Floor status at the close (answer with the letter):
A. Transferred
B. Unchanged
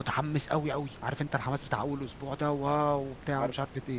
B